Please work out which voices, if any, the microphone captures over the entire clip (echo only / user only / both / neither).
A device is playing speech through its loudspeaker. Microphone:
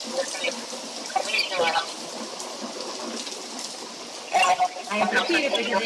both